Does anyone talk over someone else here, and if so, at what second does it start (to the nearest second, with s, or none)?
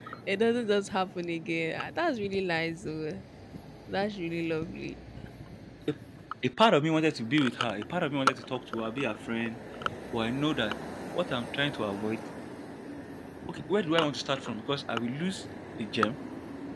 none